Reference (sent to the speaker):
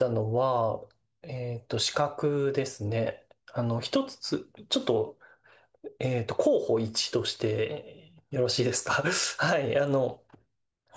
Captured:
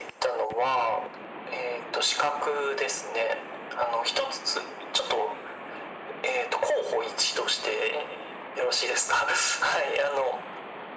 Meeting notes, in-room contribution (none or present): none